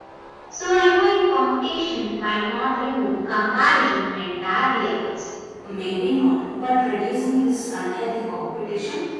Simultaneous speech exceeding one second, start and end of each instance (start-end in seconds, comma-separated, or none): none